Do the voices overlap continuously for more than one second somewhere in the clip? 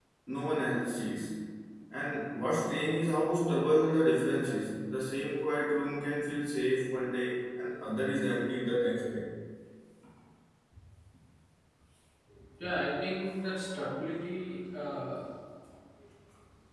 No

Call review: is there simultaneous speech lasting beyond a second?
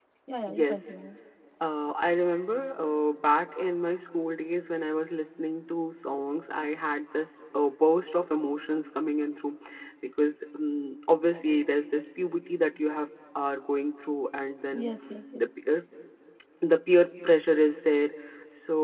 No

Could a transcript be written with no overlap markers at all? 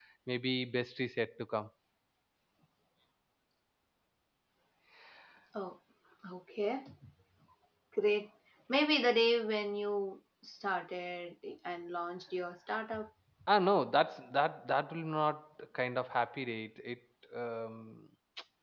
Yes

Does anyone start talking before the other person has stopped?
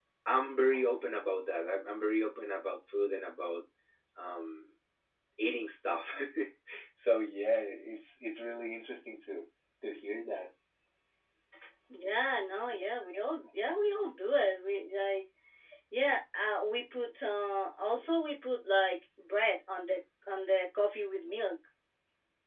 No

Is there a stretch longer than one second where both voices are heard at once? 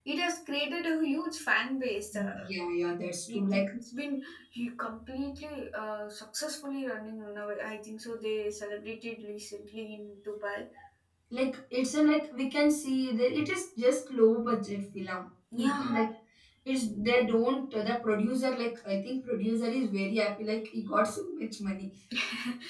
No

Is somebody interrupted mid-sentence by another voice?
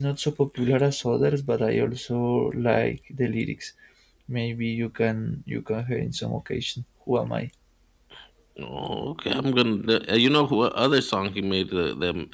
No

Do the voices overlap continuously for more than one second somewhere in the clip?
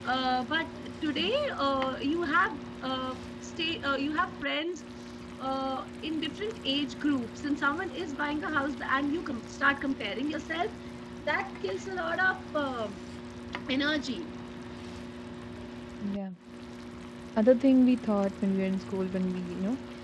No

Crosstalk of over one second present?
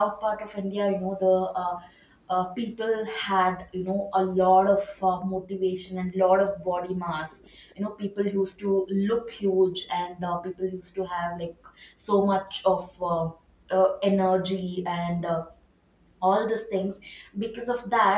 No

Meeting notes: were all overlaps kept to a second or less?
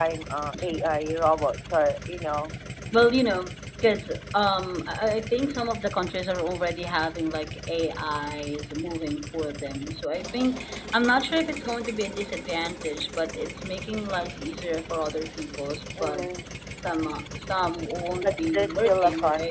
No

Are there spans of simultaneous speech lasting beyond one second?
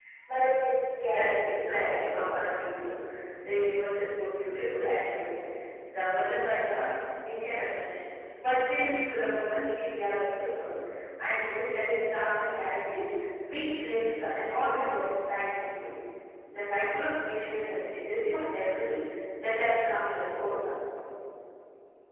Yes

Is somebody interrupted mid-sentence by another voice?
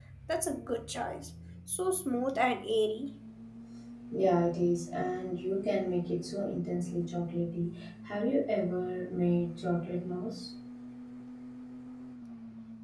No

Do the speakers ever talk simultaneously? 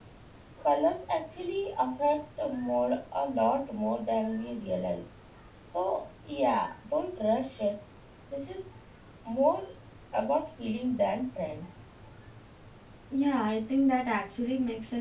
No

